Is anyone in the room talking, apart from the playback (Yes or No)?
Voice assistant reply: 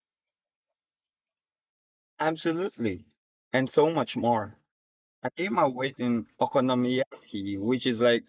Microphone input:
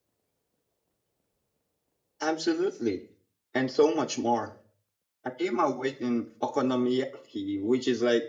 No